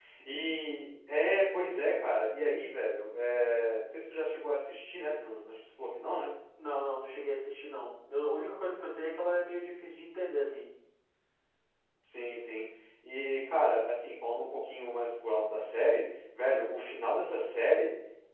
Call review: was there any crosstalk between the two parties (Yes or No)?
No